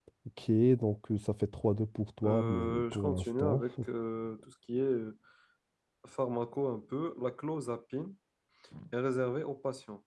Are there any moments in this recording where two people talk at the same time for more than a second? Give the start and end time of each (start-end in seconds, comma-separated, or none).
2.2-3.6